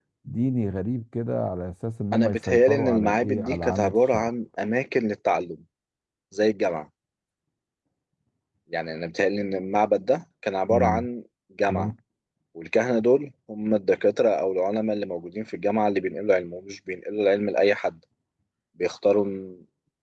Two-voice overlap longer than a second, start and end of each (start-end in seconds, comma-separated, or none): 2.1-4.3